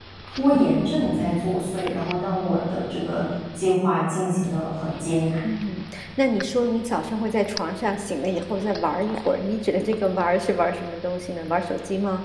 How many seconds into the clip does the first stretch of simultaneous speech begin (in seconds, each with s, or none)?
none